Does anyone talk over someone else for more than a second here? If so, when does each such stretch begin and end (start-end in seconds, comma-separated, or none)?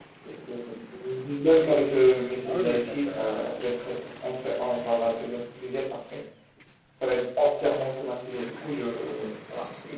2.5-3.7